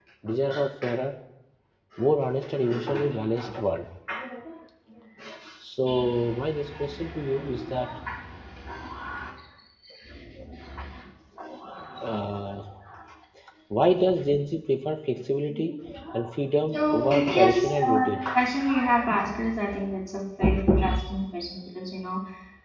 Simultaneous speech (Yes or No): Yes